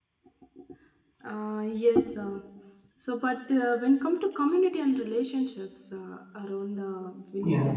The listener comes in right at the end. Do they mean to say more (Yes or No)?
No